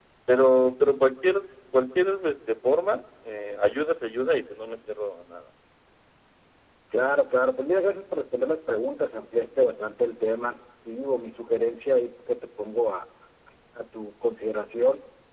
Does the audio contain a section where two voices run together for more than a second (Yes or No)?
No